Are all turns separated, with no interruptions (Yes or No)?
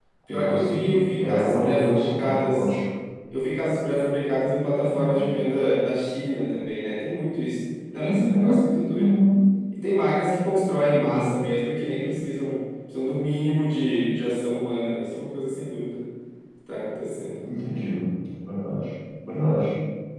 No